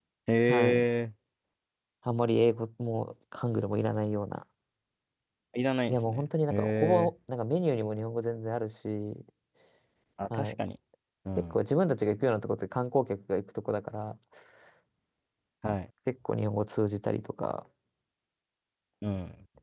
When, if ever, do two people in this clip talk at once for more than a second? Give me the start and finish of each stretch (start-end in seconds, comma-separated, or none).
5.9-7.1